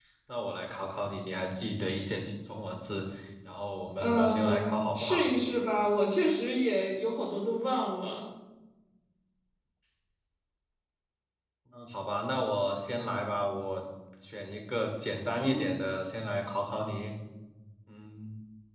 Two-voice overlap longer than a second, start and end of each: 4.0-5.2

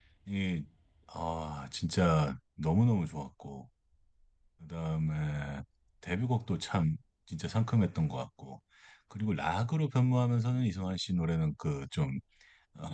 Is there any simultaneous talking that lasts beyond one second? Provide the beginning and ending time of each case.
none

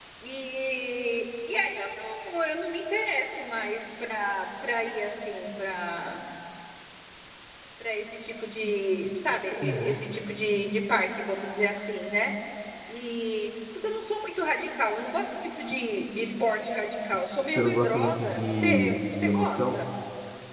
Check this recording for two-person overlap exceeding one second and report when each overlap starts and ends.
17.5-19.8

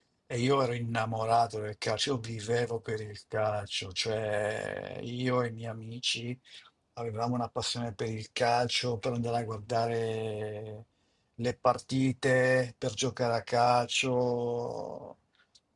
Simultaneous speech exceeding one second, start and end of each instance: none

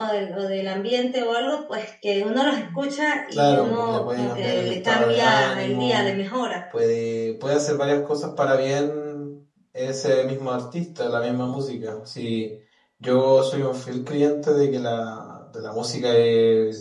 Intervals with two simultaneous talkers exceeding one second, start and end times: 3.3-6.1

